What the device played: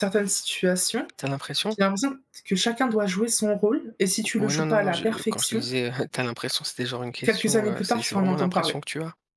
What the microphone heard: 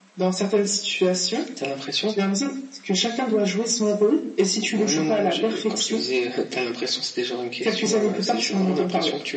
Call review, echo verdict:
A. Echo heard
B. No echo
A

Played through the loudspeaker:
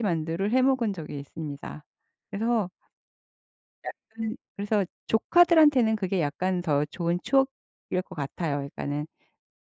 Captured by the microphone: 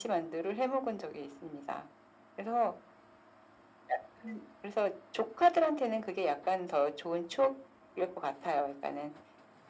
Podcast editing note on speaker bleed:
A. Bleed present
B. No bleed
A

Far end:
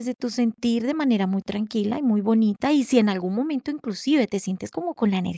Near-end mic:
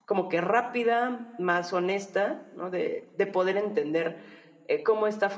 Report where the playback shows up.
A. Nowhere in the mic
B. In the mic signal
A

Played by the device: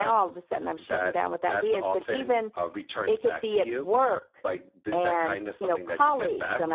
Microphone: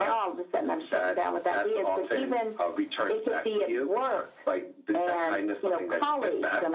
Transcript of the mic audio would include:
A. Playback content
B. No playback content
A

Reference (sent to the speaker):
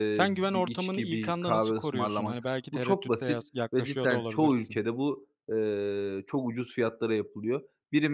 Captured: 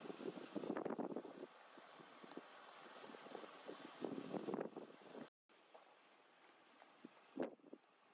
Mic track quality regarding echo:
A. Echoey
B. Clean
B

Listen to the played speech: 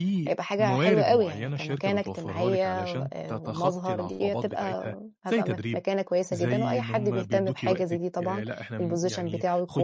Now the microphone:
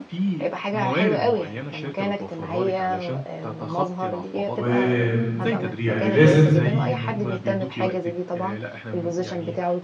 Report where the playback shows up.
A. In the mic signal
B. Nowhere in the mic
A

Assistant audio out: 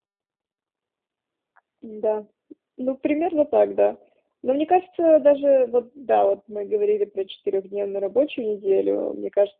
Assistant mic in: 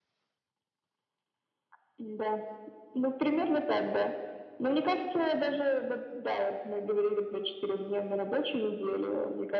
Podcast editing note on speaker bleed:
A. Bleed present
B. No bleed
A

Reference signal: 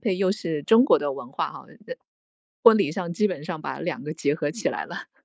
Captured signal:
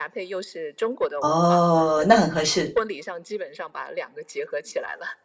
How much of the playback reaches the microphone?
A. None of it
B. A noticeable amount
B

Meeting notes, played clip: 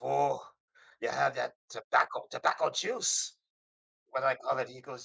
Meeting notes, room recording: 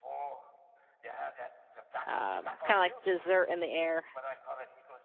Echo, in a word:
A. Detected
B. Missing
A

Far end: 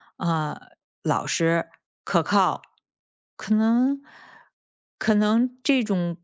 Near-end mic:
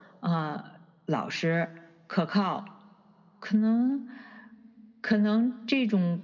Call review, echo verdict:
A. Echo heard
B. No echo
A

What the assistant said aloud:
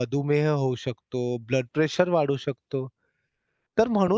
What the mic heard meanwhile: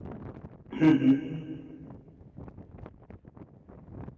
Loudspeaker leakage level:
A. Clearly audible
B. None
B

